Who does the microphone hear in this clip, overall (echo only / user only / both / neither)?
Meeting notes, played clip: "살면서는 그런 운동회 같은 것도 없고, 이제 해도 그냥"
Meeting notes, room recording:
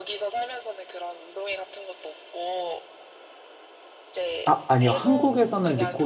both